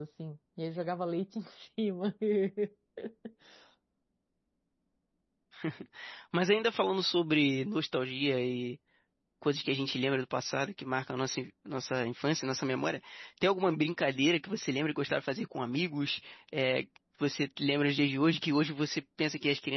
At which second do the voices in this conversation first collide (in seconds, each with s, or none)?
none